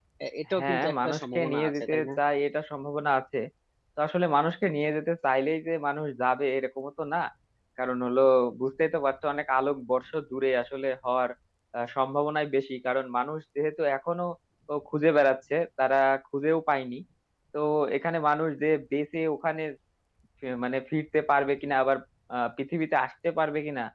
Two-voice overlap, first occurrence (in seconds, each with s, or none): 0.6 s